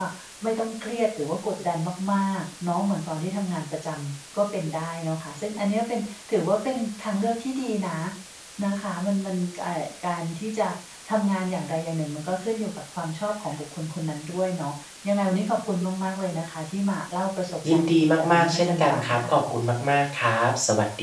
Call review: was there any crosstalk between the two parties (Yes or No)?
Yes